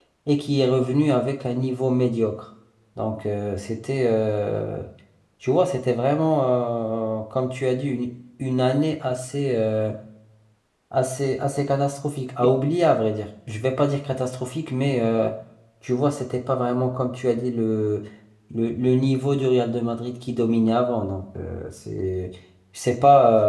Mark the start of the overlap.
none

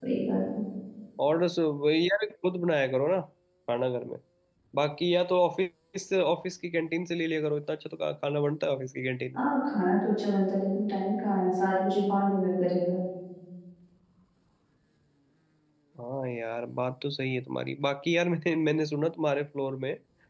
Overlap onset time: none

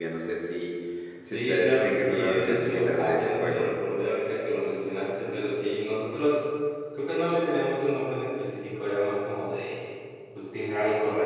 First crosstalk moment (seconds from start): 1.2 s

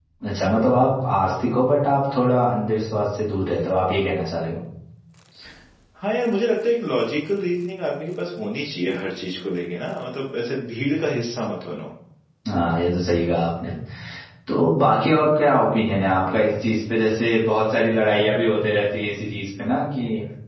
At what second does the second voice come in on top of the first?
none

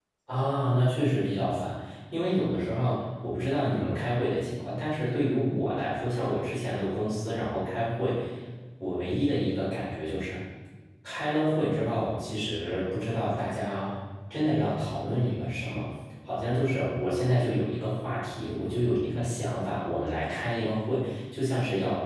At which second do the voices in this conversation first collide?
none

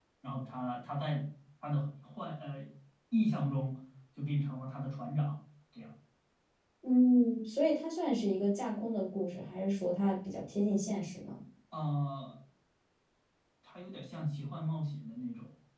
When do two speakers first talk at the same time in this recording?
none

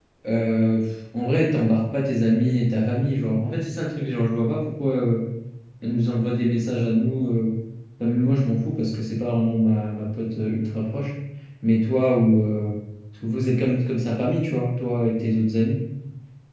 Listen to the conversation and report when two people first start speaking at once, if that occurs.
none

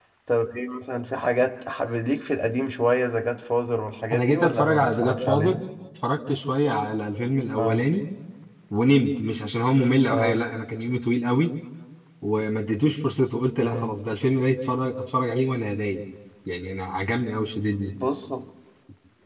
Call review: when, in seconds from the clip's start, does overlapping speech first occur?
4.1 s

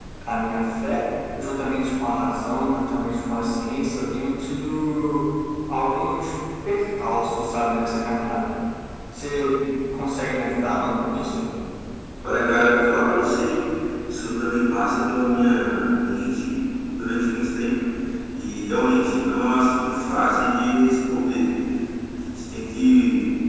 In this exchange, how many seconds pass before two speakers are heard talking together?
none

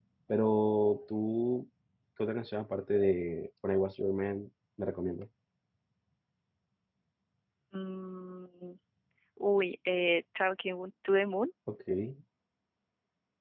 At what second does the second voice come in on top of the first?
none

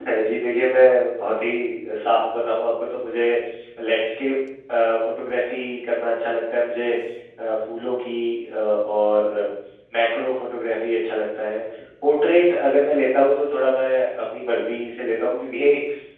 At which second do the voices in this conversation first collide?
none

